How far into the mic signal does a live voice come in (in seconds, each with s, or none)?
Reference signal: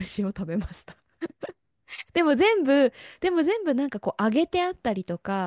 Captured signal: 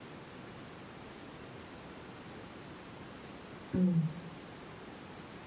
3.7 s